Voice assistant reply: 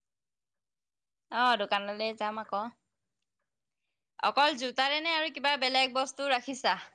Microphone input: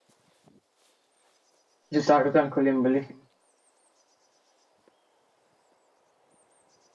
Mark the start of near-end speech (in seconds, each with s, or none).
2.0 s